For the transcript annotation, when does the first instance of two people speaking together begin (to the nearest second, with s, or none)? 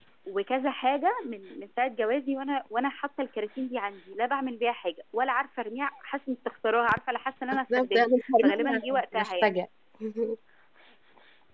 8 s